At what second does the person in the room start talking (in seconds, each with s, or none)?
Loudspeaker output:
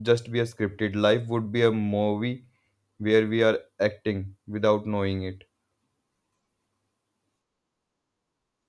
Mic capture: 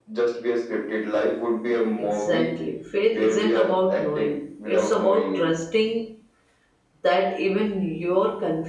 2.0 s